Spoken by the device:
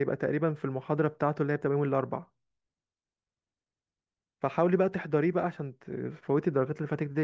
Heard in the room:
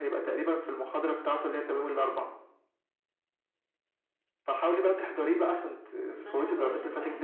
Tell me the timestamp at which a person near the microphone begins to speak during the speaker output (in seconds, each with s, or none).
6.2 s